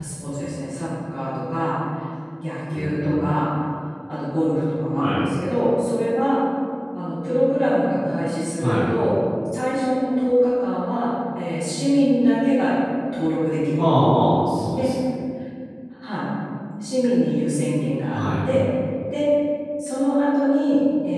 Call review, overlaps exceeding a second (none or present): none